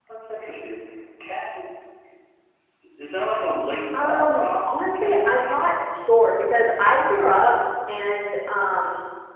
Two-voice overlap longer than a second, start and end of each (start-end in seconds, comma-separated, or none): 4.0-5.5